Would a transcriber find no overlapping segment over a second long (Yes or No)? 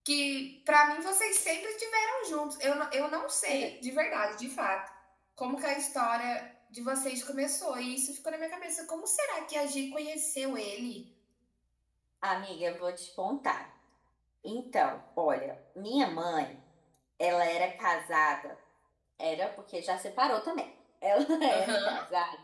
Yes